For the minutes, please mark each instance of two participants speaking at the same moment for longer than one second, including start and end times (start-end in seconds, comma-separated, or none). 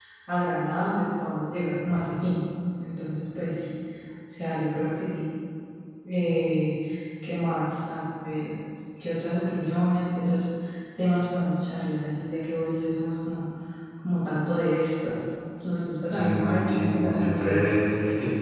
16.1-17.4